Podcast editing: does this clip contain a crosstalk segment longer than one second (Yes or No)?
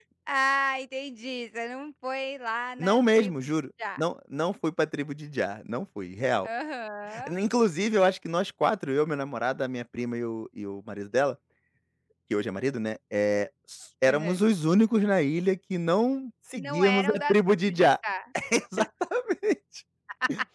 Yes